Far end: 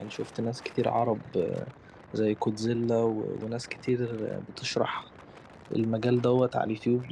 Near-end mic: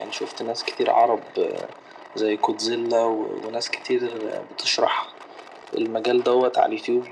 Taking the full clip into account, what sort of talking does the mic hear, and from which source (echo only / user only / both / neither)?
echo only